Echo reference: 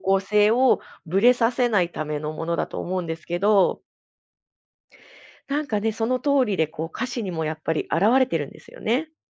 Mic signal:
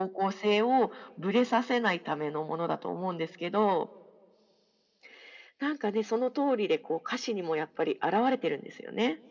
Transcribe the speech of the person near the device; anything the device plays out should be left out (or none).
none